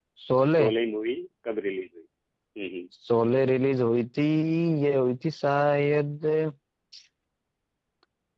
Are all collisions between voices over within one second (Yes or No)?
Yes